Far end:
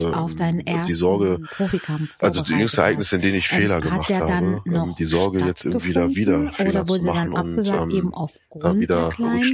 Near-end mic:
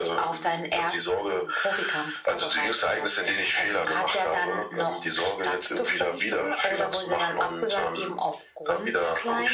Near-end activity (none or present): none